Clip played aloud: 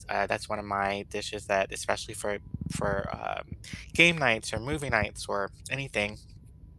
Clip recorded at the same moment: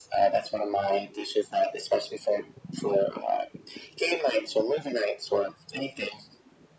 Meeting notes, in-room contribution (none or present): none